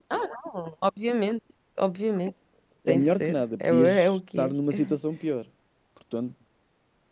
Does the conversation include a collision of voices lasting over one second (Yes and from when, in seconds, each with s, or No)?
Yes, from 2.9 s